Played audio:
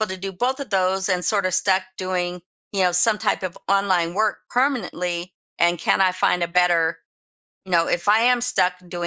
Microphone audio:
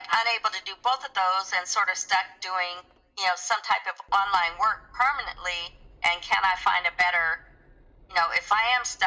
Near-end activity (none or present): none